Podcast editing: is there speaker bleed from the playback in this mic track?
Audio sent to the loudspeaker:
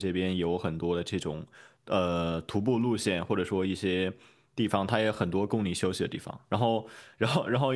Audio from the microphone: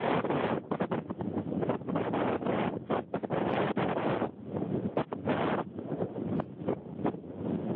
No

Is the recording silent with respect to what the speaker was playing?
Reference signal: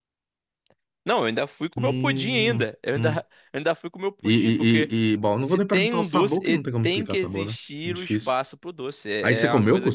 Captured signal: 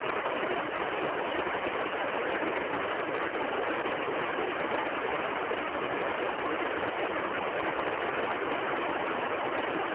Yes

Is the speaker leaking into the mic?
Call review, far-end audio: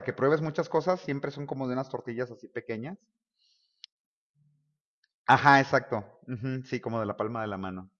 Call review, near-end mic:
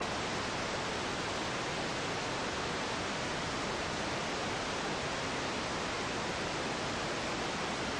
No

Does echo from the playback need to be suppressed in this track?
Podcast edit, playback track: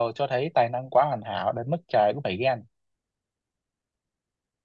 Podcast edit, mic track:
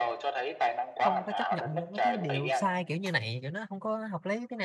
Yes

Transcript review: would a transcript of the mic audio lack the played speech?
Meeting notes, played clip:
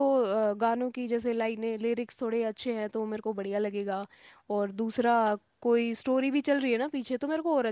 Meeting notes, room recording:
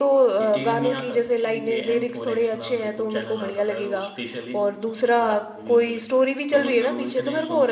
No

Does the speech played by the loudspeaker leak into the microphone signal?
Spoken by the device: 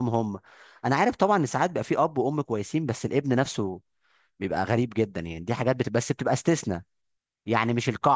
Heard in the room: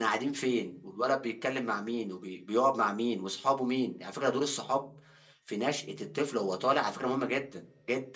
No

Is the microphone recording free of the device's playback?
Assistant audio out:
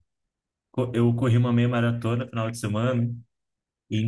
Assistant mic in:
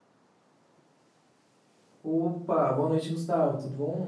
Yes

